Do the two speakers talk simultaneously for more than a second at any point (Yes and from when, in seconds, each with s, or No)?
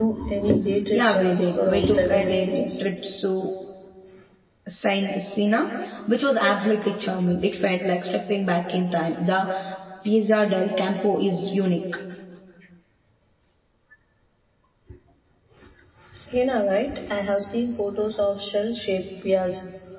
Yes, from 0.9 s